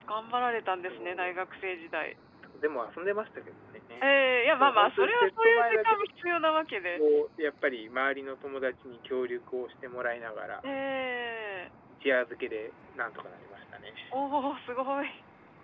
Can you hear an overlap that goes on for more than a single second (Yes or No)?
Yes